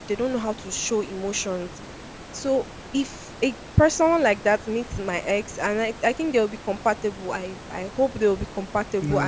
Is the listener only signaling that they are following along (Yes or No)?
Yes